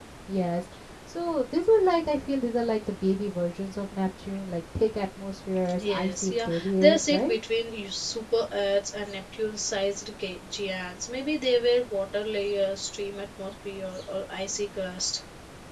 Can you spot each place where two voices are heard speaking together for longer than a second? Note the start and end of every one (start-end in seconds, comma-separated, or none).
5.8-7.3